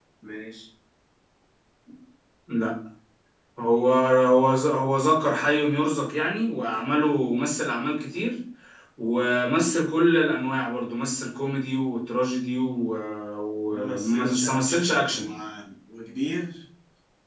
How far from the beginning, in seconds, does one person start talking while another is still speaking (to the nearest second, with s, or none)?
14 s